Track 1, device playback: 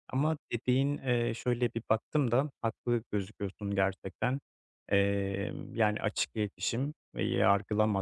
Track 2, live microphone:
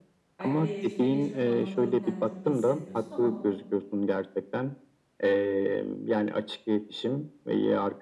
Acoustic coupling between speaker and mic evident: Yes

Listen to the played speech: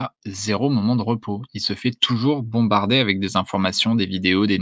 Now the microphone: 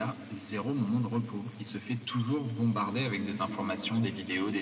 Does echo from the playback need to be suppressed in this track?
Yes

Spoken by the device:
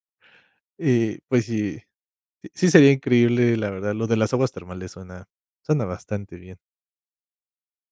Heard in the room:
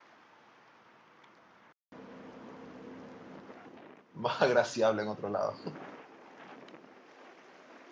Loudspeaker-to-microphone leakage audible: No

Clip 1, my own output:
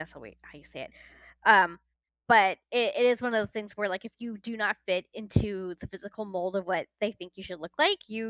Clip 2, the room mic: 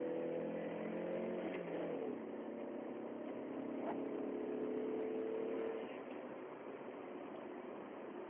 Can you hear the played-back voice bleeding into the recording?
No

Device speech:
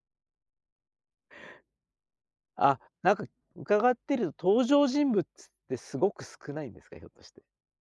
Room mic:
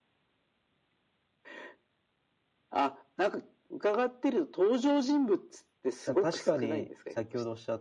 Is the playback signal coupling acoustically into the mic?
Yes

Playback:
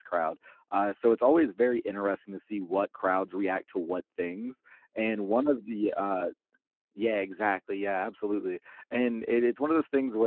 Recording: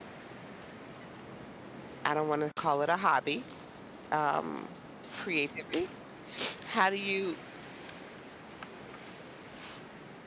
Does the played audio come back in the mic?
No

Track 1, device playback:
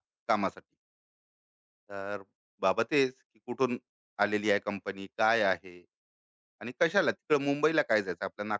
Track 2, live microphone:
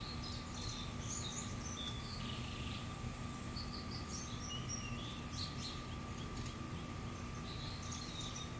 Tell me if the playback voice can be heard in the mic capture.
No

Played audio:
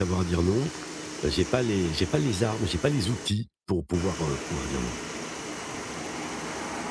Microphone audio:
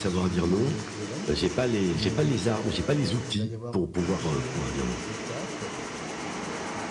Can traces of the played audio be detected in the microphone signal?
Yes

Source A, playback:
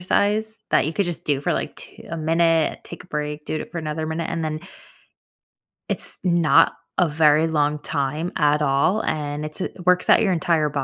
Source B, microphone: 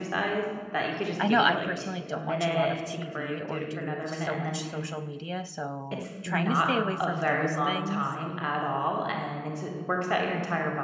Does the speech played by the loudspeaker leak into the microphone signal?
Yes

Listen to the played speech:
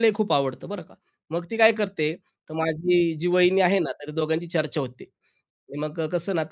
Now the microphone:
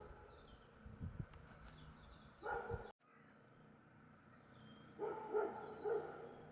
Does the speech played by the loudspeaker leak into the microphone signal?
No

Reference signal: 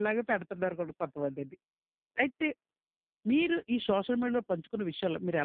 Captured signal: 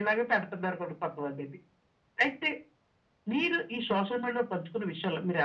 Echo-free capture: No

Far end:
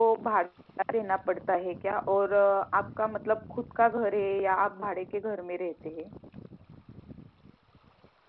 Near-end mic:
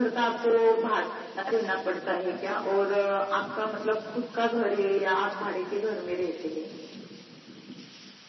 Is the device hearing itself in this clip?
Yes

